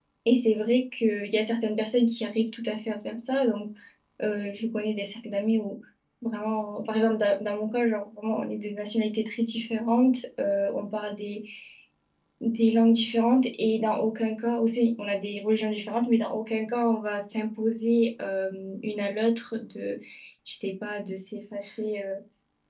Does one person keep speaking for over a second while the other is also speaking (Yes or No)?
No